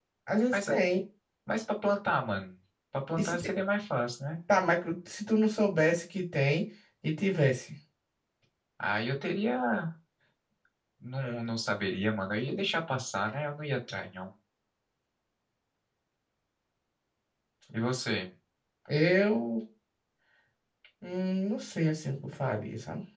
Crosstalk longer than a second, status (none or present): none